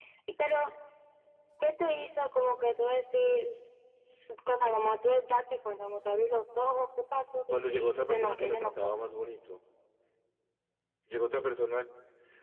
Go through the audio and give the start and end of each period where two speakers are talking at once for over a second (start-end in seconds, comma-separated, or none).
7.6-9.0